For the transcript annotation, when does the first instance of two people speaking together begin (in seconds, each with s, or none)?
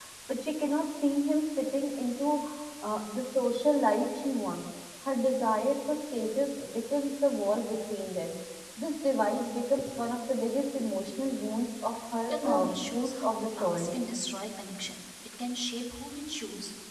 12.3 s